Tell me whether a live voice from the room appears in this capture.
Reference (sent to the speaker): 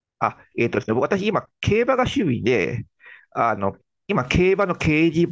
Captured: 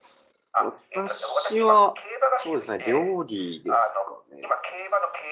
Yes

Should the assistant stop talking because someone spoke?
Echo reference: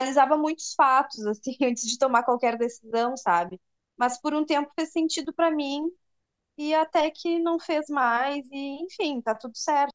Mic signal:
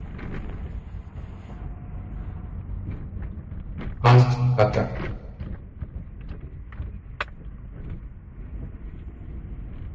Yes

